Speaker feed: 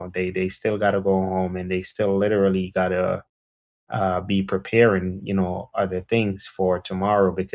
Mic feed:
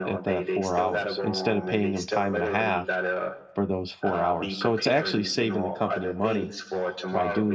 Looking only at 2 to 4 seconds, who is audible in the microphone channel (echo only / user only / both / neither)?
both